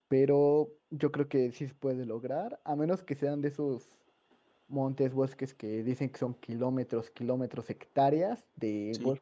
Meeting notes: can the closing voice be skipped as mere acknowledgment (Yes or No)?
Yes